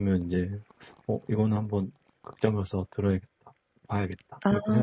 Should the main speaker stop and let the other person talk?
Yes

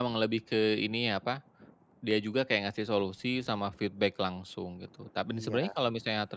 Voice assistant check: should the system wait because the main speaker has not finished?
Yes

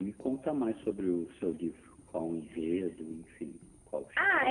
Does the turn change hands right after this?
Yes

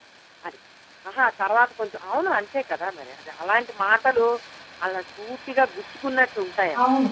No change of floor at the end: No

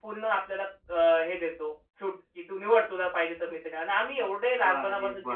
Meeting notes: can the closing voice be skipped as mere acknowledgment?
No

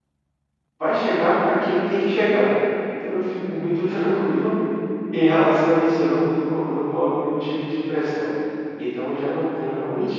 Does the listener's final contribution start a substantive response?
Yes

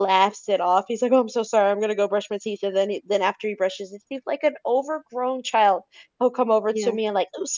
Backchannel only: Yes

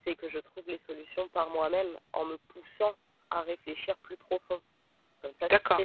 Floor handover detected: No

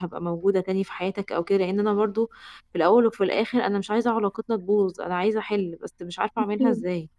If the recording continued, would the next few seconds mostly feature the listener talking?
Yes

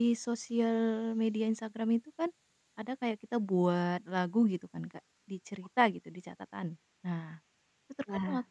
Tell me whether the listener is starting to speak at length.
No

